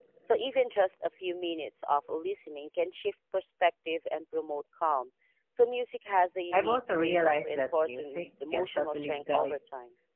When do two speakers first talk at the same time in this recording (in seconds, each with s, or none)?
6.5 s